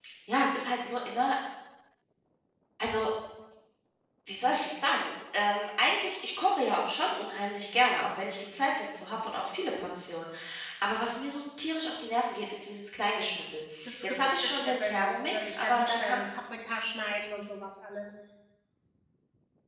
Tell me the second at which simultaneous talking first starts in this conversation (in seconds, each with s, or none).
13.8 s